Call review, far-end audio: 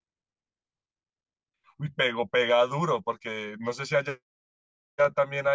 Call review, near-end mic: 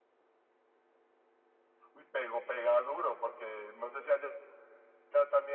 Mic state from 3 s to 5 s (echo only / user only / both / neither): echo only